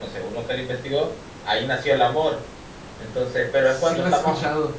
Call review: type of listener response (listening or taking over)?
taking over